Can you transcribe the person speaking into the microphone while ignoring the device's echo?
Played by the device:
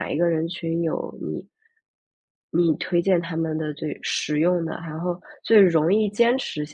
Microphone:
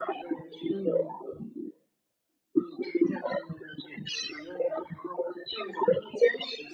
嗯，

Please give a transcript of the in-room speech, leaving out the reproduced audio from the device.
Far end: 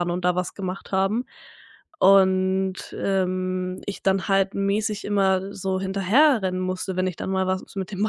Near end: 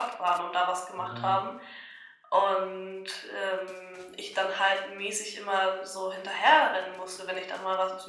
Aber

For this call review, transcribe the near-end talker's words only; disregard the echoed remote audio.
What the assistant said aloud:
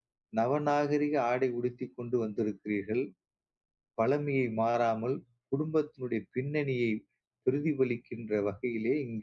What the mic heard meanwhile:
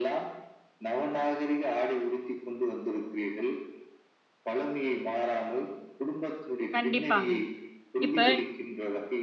கண்டிப்பாங்க. இப்ப

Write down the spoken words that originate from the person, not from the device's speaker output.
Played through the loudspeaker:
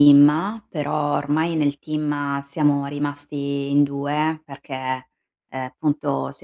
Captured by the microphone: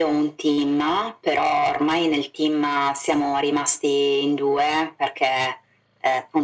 none

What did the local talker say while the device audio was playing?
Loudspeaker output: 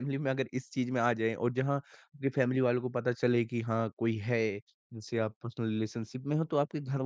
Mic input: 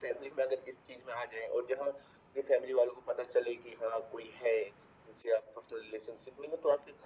none

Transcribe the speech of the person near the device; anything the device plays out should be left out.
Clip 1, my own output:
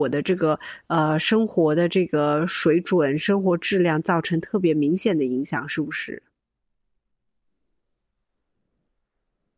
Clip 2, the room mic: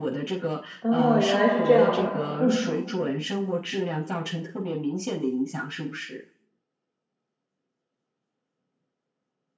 哦，原来是这样的，嗯，

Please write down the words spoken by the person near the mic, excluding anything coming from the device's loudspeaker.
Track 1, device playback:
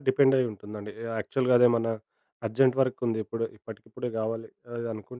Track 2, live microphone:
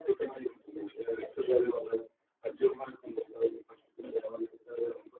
none

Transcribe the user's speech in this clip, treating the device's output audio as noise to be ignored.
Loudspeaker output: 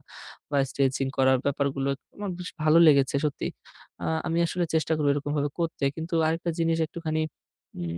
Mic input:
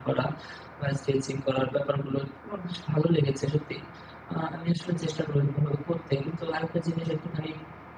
none

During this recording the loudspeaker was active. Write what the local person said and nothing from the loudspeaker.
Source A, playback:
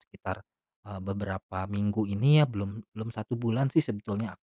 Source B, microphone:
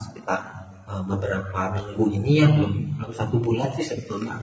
none

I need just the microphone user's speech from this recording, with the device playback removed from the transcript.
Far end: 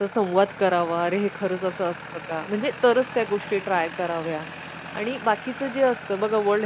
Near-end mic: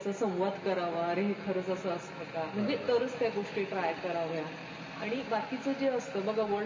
बरोबर.

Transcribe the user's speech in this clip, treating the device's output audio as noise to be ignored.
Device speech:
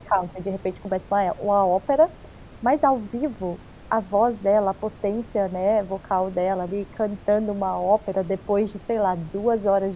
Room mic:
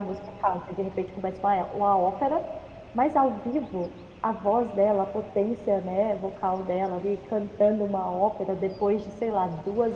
none

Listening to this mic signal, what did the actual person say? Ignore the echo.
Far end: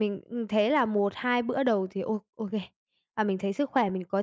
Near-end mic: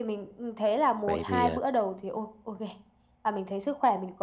Vậy thì, à

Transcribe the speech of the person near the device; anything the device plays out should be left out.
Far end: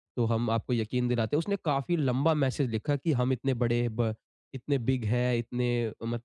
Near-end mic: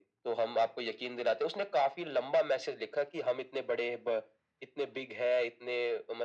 none

